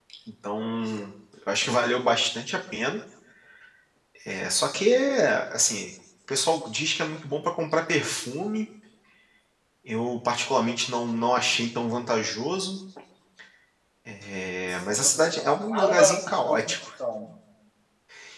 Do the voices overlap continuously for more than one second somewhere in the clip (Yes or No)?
Yes